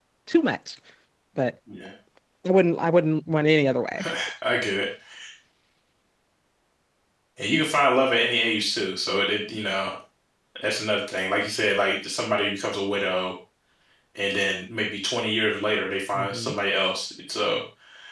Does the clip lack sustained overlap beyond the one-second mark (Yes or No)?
Yes